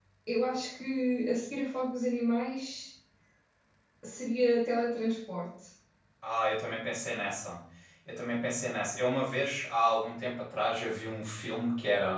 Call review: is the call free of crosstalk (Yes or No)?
Yes